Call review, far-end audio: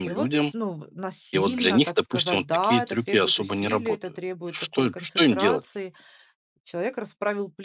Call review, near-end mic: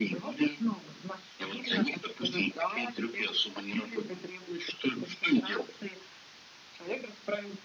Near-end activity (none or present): none